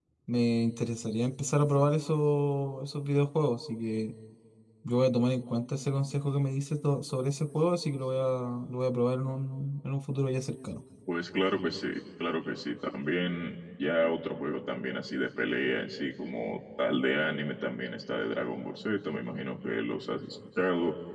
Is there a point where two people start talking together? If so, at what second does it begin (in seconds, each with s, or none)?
none